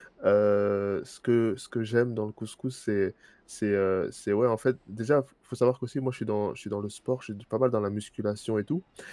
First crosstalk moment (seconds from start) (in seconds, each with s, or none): none